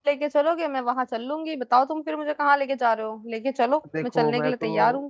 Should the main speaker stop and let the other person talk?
Yes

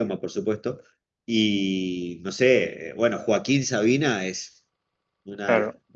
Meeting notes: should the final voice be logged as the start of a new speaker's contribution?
No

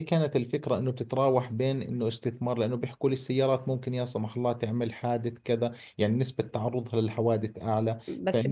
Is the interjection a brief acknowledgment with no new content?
No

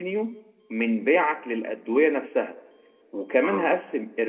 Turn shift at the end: No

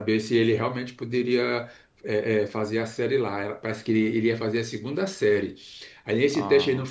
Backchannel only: Yes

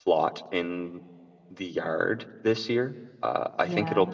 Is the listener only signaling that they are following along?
Yes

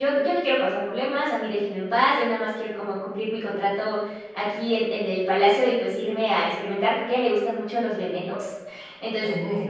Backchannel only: Yes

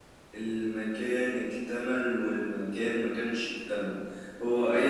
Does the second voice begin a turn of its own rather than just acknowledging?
No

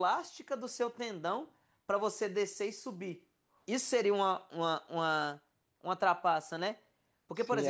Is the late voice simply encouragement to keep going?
No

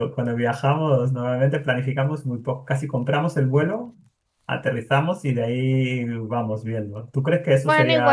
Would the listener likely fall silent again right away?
No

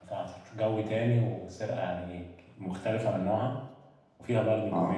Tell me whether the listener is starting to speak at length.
No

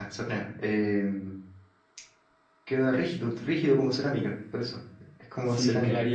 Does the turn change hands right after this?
Yes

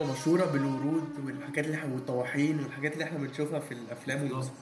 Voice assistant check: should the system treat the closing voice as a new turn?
Yes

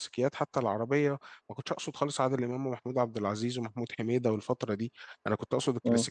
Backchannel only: Yes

